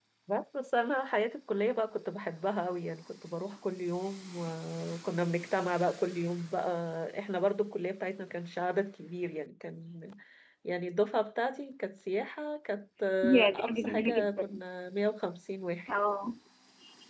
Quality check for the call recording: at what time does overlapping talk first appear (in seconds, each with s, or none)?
13.2 s